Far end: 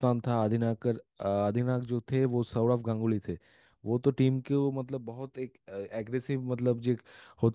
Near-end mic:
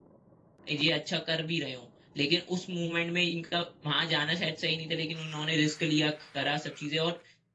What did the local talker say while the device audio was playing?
ये अच्छा कर भी रहे हो लेकिन उस मूवमेंट में इनका वहां जाना शायद सही नहीं था लेकिन उन्होंने रिस्क लिया करा सब चीजें और

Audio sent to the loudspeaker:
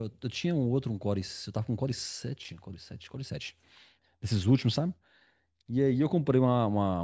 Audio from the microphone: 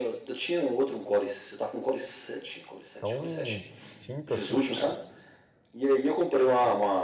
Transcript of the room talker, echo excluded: tão, tão distinto assim, cara.

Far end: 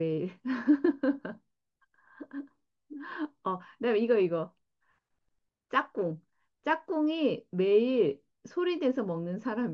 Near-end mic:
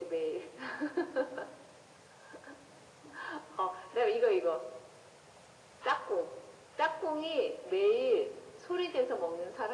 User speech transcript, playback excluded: none

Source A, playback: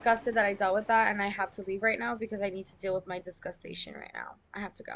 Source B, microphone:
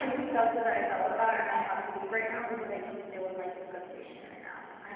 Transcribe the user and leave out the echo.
none

